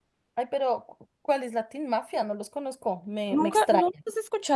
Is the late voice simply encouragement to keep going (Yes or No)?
No